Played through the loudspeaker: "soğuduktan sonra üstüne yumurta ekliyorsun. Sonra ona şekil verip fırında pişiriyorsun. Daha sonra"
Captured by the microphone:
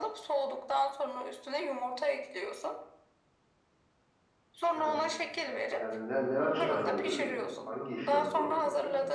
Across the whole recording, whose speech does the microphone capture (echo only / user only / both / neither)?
both